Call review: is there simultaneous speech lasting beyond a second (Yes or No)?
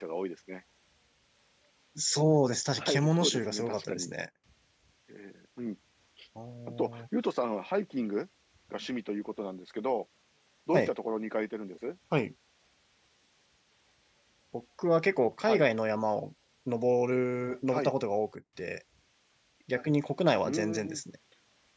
Yes